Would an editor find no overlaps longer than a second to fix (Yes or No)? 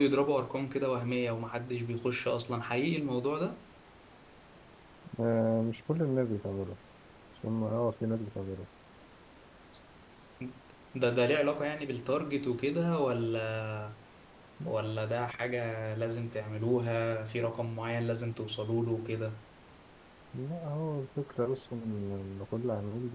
Yes